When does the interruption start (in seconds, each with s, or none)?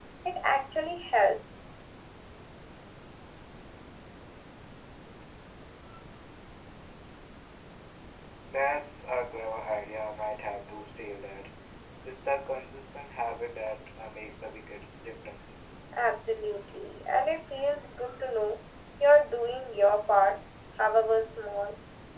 none